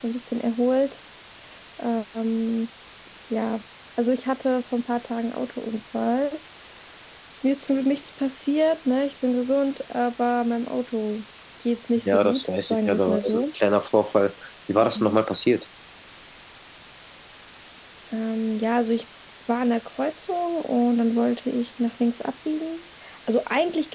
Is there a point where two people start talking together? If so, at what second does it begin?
12 s

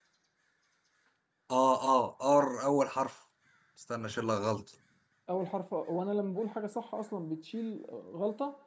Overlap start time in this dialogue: none

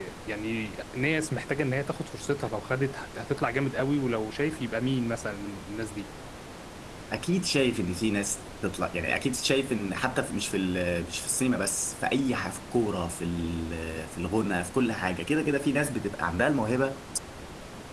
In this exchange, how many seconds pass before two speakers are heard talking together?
none

